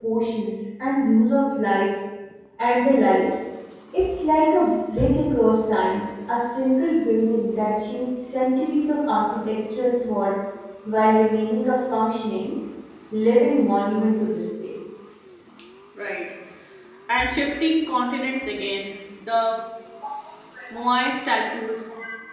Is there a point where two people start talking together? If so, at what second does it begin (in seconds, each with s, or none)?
none